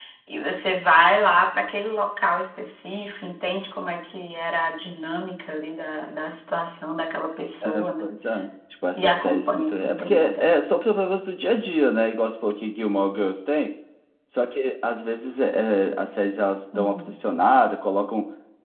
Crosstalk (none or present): present